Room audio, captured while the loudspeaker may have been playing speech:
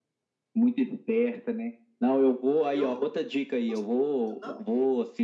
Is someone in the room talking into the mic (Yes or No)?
Yes